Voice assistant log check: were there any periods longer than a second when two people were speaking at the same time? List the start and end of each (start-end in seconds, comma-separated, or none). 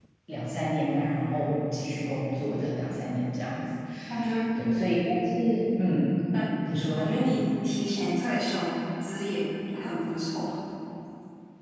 none